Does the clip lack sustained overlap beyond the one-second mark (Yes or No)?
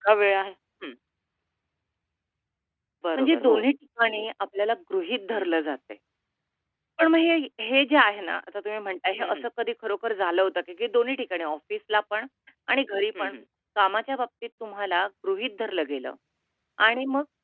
Yes